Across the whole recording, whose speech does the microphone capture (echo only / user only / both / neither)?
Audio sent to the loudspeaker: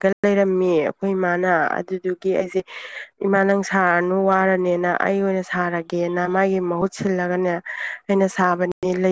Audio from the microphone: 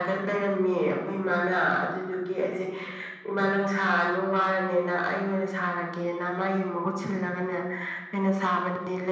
echo only